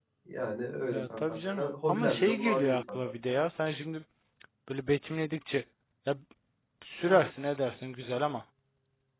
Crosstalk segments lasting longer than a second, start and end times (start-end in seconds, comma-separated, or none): 0.9-3.1